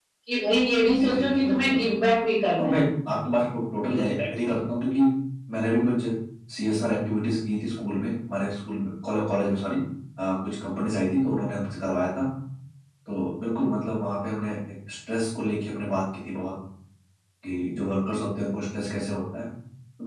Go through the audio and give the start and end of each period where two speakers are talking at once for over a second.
0.7-2.0

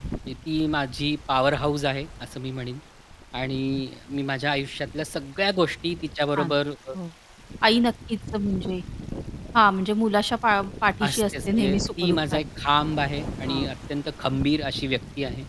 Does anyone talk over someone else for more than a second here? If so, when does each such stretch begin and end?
11.0-12.4

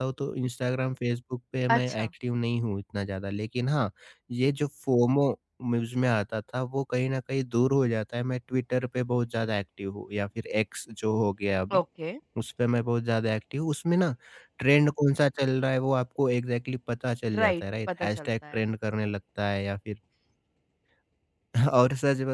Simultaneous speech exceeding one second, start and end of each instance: 17.4-18.6

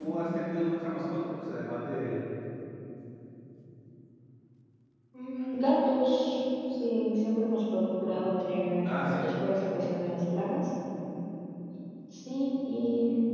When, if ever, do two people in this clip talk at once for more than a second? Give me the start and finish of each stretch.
none

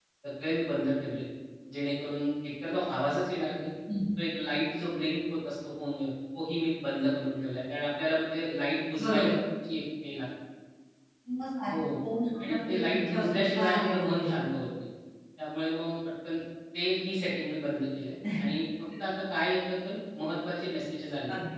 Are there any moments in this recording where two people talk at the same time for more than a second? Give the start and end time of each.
12.5-14.3

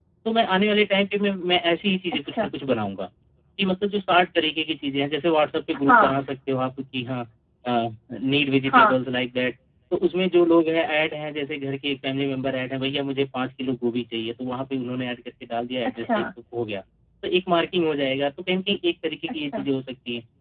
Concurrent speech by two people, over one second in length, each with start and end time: none

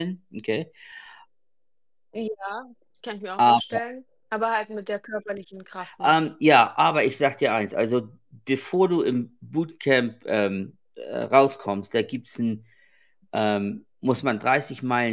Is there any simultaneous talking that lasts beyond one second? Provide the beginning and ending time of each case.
none

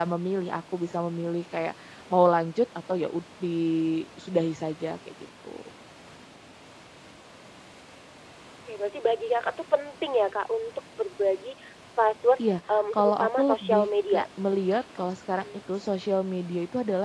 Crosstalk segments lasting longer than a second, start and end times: 12.9-14.2

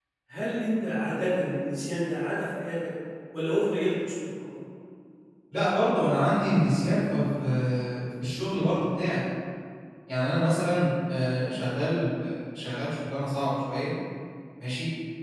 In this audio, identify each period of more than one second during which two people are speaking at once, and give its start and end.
none

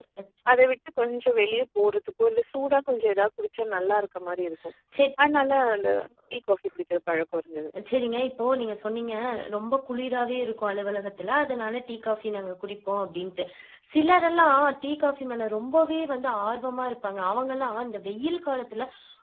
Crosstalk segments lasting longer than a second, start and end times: none

